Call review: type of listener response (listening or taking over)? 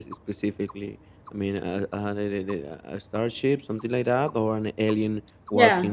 taking over